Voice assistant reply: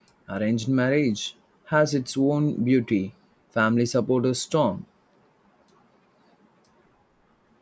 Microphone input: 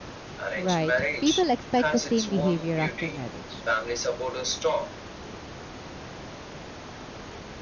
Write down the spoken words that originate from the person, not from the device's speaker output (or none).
Right, people expect the same behavior after marriage.